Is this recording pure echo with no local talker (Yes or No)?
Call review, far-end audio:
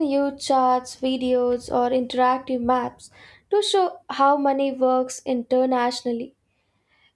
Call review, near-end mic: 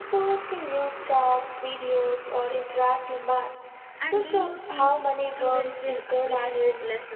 No